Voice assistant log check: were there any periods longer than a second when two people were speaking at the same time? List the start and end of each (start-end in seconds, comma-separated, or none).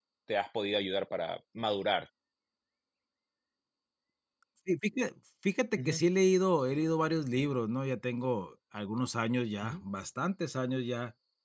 none